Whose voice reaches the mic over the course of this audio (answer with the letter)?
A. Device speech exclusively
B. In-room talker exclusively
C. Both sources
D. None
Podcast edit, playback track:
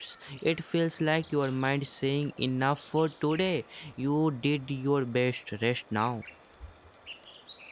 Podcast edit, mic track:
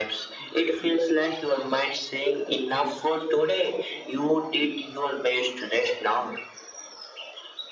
A